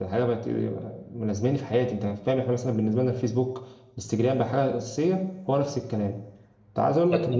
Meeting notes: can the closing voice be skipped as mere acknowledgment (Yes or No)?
Yes